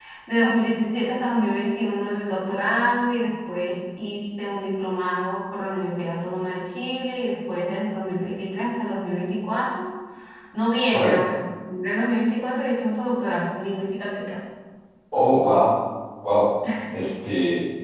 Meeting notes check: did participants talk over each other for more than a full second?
No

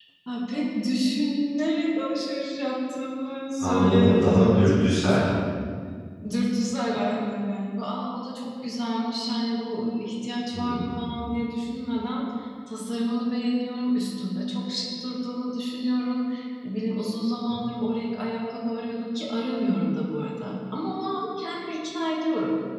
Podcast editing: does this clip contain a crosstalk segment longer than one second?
Yes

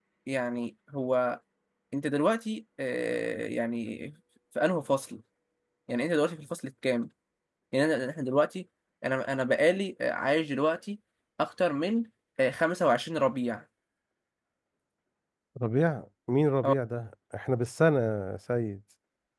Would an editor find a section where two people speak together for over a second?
No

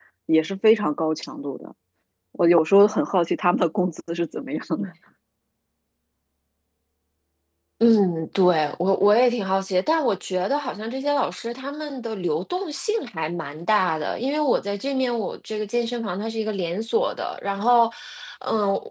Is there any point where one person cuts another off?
No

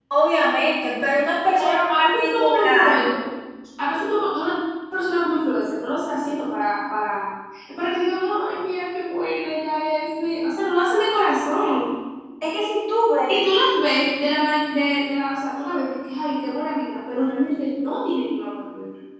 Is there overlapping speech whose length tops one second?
Yes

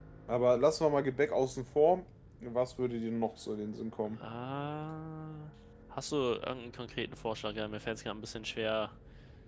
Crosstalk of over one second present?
No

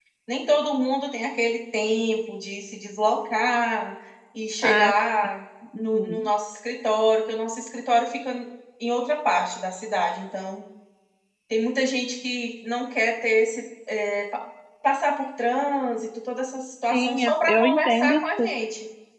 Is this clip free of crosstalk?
No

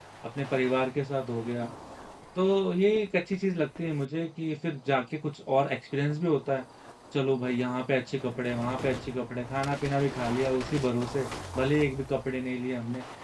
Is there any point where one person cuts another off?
No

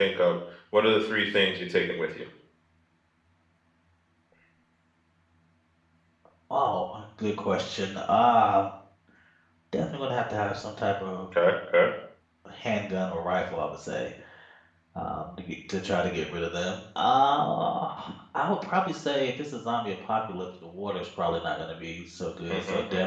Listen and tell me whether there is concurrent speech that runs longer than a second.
No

